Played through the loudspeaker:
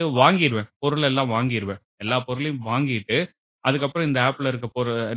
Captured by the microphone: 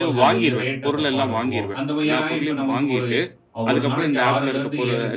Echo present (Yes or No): Yes